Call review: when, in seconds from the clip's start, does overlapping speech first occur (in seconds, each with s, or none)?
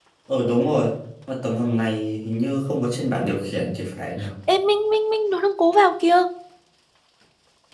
none